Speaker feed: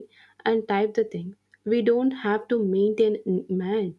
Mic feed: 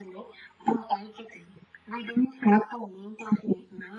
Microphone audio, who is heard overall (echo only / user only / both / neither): echo only